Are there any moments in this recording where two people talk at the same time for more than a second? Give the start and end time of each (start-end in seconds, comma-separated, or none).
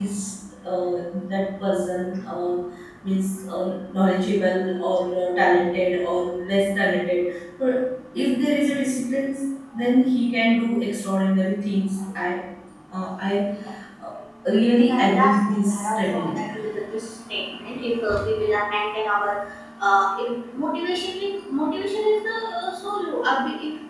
14.8-16.5